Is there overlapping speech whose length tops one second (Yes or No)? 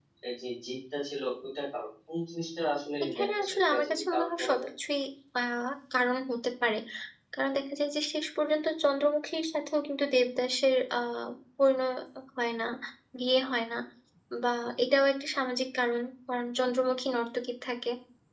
Yes